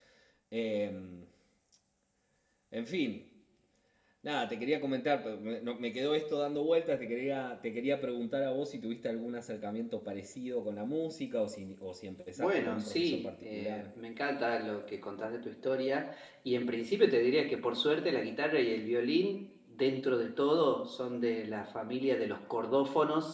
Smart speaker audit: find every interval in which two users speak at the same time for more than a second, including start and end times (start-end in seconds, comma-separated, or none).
12.4-13.8